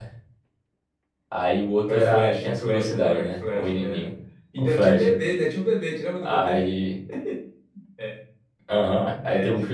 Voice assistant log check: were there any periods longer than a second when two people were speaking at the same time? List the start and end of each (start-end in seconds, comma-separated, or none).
1.9-4.1